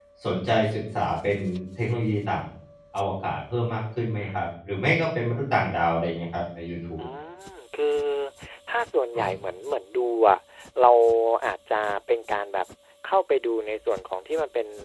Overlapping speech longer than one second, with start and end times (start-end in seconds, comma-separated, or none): none